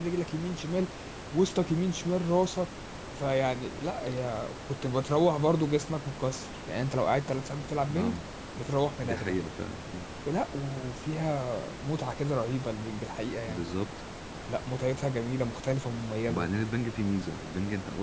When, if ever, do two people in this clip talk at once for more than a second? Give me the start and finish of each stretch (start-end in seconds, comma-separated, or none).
none